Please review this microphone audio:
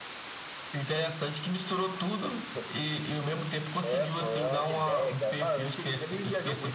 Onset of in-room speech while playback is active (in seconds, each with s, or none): none